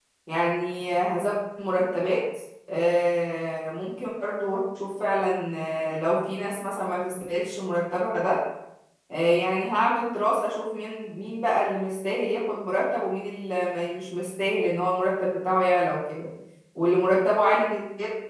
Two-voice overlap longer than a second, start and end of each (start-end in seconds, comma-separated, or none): none